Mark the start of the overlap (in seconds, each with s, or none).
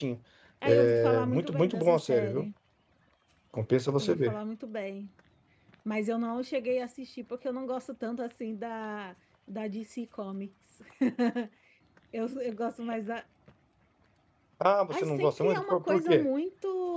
0.6 s